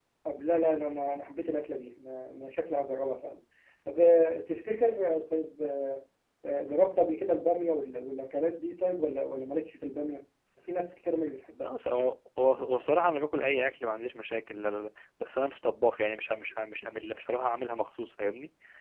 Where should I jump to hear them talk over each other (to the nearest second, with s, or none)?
none